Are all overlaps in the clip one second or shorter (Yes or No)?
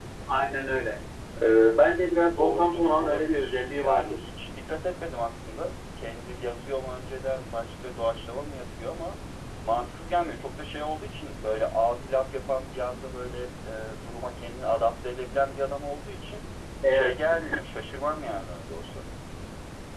No